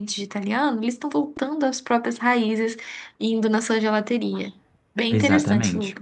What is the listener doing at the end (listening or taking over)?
taking over